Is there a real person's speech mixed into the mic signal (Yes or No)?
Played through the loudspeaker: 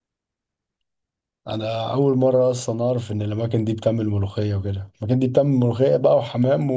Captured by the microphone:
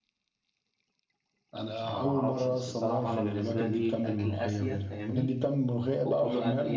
Yes